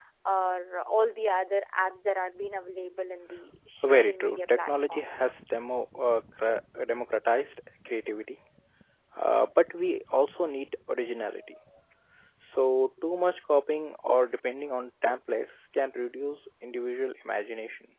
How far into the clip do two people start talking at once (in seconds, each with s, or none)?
3.8 s